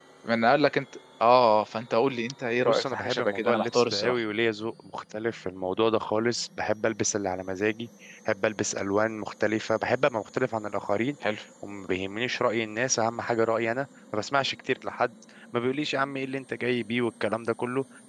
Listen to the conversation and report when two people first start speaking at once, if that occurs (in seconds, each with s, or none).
2.6 s